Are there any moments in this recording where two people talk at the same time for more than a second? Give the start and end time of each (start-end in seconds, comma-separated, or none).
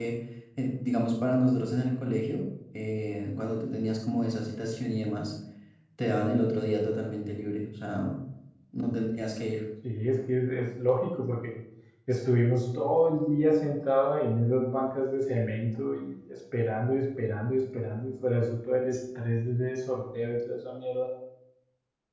none